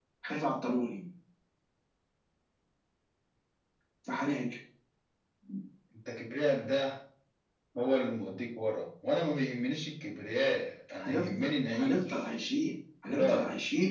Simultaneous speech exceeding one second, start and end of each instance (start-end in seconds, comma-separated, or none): 10.9-12.3